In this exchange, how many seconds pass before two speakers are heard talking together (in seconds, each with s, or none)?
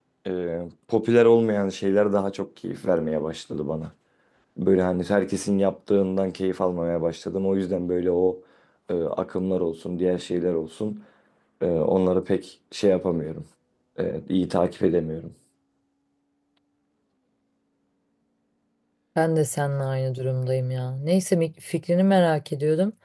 none